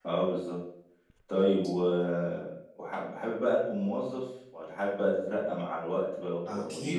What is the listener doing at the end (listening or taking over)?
taking over